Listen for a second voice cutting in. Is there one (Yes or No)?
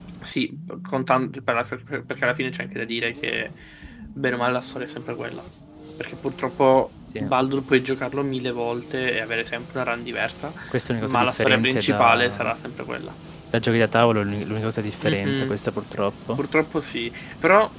Yes